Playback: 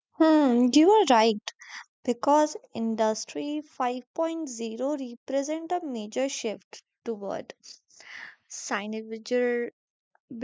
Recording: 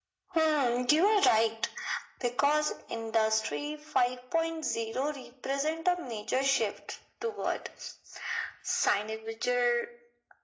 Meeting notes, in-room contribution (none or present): none